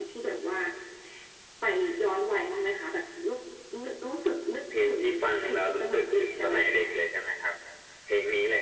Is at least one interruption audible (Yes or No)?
Yes